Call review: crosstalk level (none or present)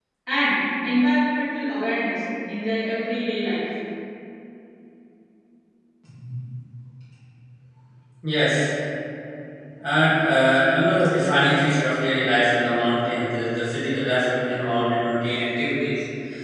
none